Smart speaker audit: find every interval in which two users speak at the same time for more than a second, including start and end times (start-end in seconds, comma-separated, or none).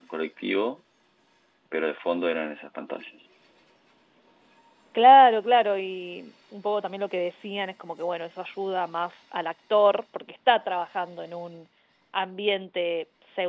none